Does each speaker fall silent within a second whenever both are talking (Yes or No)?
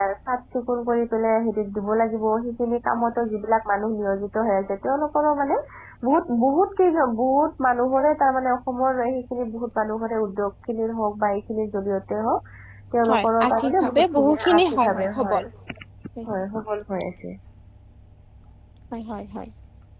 No